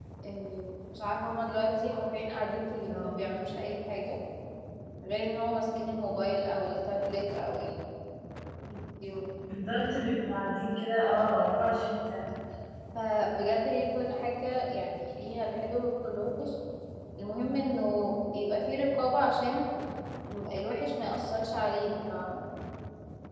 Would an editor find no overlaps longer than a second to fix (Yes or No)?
Yes